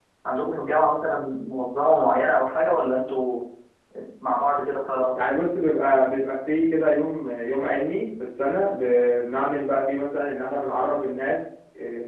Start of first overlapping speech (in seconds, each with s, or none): none